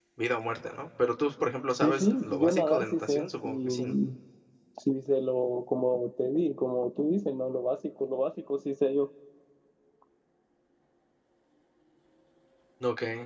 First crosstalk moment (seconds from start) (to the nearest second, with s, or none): 2 s